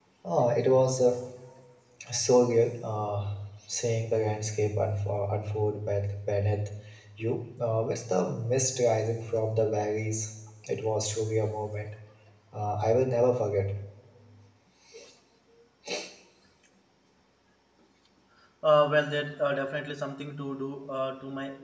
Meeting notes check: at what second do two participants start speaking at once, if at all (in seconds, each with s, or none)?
none